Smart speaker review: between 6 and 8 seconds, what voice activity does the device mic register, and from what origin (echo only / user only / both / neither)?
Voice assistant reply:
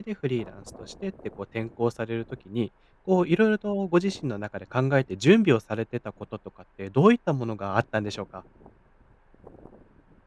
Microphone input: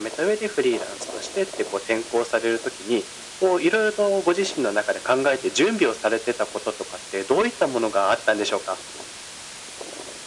echo only